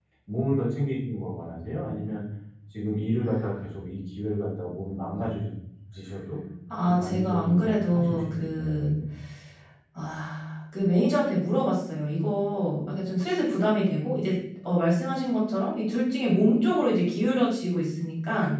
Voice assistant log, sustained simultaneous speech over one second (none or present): present